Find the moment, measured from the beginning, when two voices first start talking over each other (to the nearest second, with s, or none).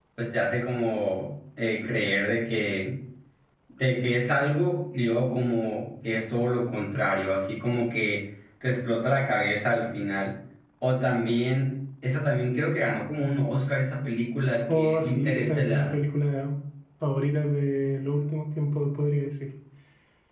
15 s